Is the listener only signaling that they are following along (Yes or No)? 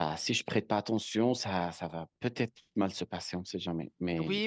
No